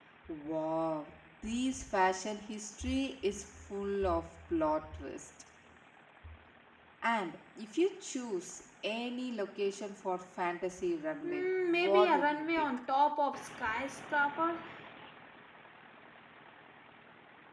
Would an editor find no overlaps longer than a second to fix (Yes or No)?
No